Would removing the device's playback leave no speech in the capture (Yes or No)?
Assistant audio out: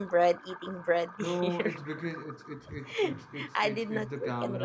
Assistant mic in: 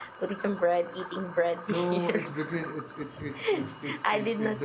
Yes